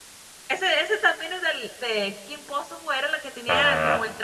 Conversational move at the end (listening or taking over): listening